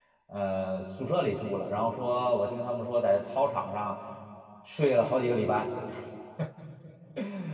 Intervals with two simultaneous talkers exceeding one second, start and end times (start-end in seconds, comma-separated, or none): none